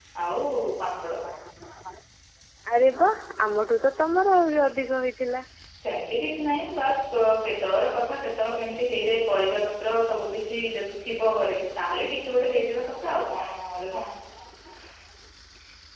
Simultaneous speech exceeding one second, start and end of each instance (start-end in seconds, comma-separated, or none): none